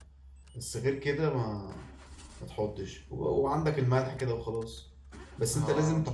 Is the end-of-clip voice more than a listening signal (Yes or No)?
No